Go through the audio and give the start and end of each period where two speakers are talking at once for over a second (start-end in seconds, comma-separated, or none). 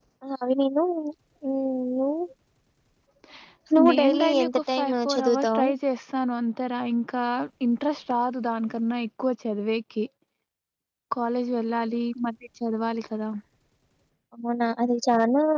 3.9-5.7